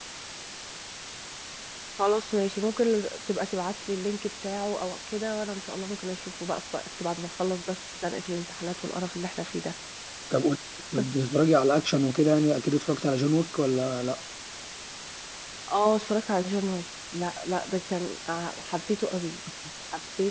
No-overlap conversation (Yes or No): Yes